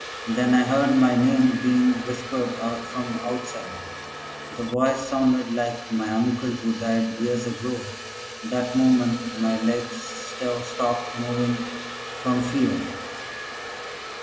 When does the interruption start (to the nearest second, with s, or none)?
none